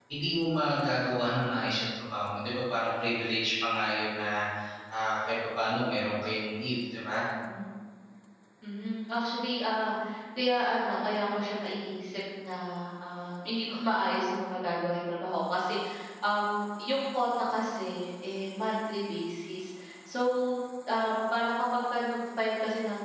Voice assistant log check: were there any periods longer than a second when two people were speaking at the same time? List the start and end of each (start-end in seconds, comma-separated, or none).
none